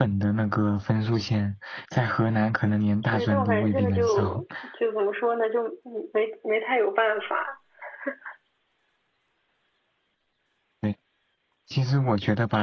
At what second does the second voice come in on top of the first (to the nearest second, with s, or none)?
3 s